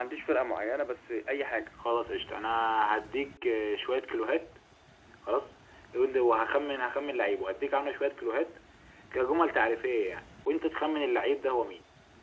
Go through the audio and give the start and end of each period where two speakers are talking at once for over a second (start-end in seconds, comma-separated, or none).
none